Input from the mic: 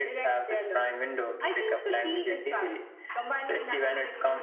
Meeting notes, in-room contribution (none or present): none